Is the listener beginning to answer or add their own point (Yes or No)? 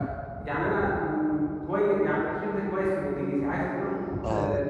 No